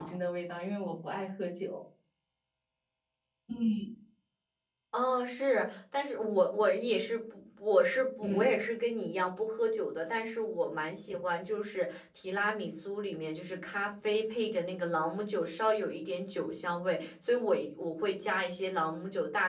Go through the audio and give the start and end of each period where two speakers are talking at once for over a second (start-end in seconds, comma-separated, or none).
none